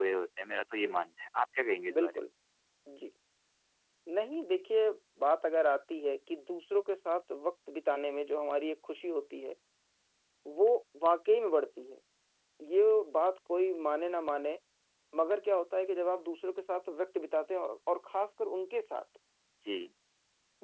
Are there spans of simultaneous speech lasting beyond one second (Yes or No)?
No